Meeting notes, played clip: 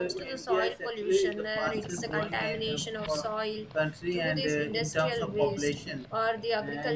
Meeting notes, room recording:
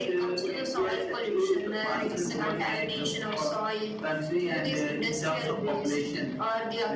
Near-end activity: none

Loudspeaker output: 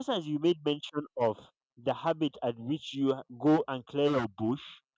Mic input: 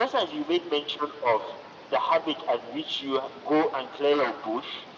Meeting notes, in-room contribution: none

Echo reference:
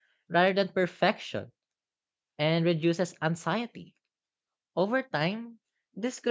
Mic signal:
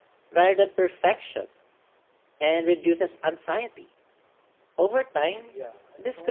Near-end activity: present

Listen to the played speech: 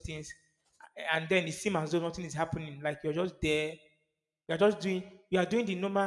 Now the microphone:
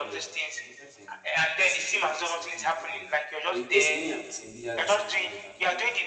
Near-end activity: present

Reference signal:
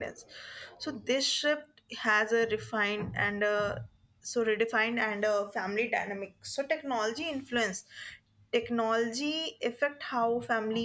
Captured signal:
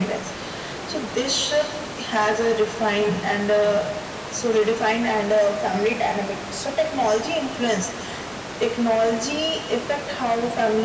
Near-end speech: none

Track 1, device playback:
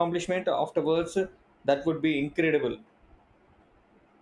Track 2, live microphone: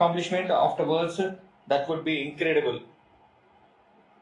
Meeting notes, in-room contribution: none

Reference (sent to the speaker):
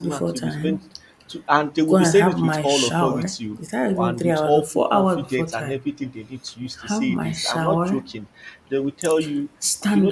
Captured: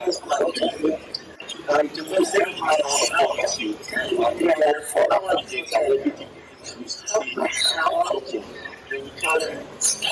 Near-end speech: none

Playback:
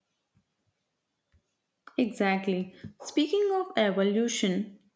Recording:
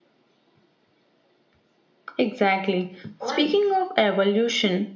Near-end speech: present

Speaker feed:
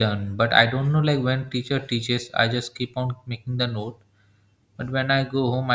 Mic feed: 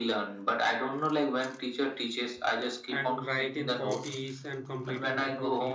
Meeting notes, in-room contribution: present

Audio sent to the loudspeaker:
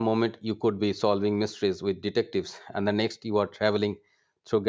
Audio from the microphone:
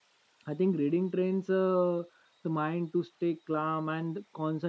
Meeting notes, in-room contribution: present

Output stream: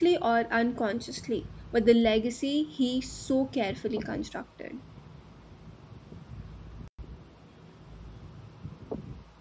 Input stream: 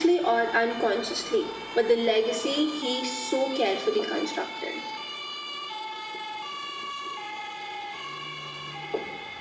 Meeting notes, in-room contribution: none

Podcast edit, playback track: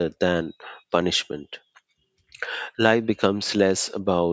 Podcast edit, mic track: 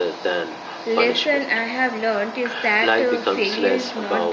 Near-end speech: present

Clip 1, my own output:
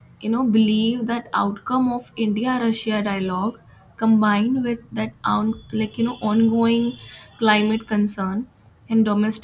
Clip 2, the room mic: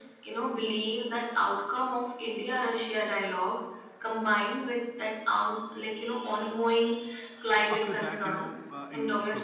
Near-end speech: present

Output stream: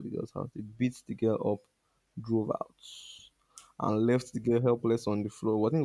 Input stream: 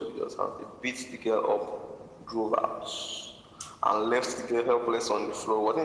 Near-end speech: none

